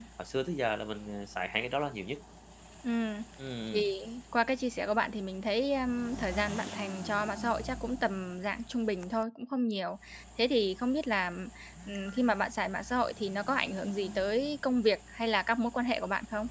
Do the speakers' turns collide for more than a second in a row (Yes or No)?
No